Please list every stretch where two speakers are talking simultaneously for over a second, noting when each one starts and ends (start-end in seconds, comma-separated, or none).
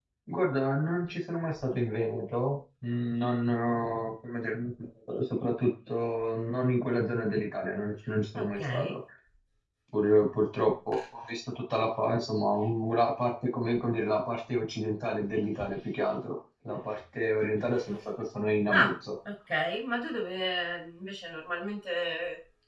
none